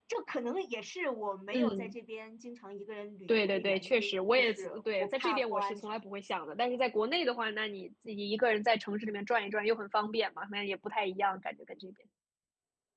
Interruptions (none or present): present